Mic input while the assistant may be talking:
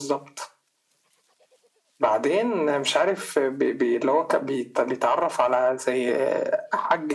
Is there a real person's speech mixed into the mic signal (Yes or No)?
No